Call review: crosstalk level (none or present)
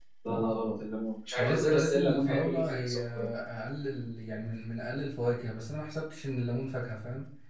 present